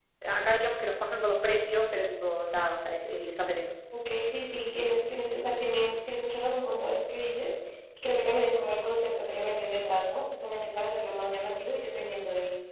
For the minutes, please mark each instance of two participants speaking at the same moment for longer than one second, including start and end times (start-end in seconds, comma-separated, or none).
none